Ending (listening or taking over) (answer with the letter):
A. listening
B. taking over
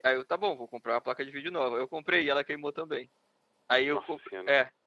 A